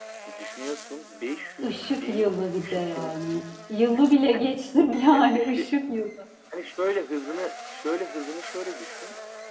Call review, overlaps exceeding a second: present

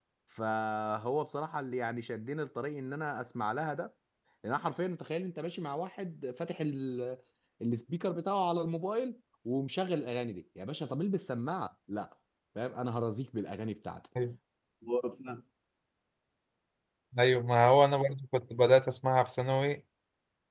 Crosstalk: none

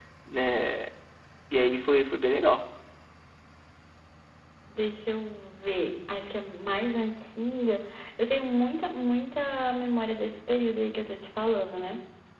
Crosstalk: none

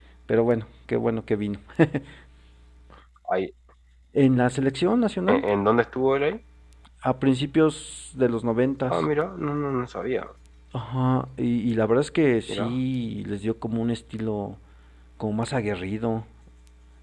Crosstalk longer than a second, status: none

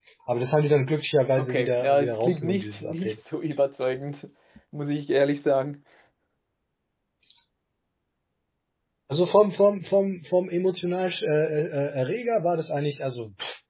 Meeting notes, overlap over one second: present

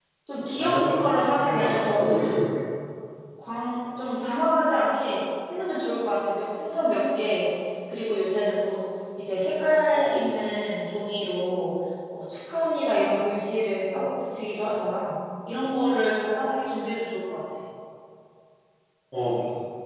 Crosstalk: present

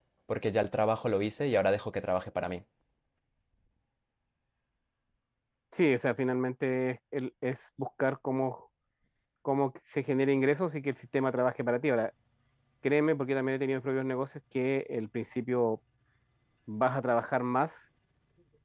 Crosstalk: none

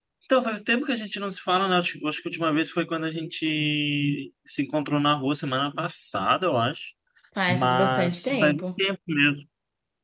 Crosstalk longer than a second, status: present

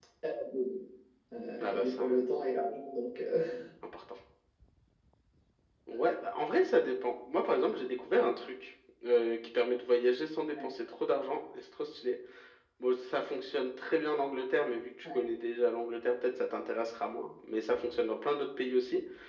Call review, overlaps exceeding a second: none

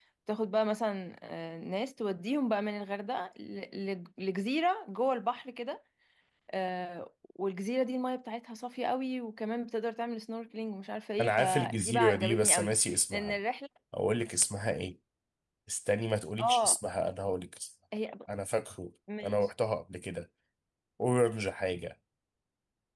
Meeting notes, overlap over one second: present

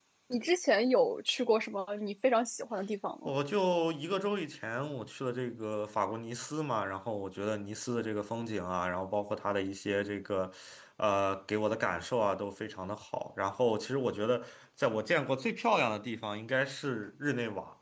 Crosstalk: none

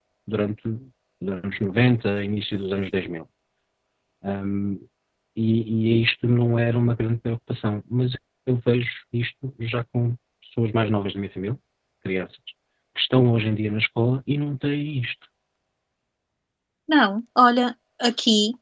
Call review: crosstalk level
none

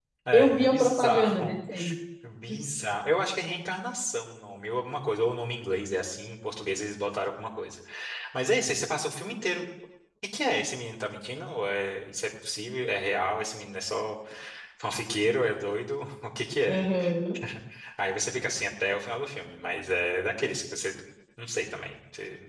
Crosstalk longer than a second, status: present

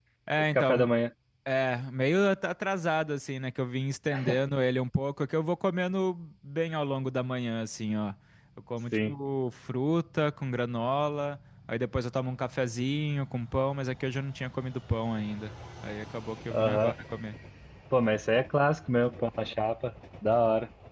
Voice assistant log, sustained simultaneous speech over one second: none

